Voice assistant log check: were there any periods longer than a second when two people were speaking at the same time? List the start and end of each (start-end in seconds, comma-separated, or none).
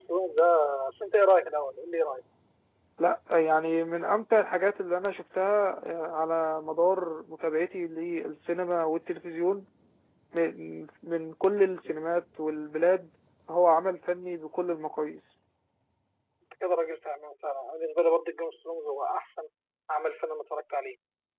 none